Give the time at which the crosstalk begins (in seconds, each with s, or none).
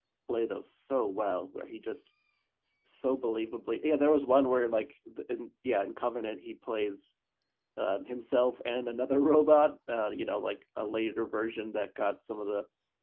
none